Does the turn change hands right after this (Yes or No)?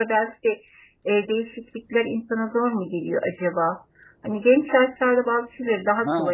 Yes